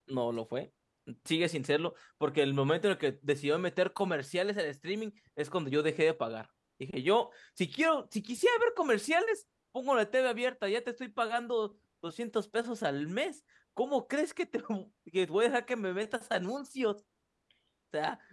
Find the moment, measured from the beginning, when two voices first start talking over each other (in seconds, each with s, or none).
none